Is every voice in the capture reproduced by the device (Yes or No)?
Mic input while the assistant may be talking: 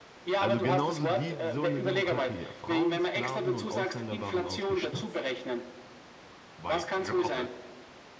No